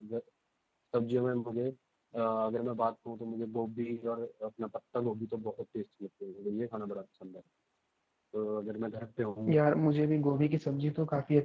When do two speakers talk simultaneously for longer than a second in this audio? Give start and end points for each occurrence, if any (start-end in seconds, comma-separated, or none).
none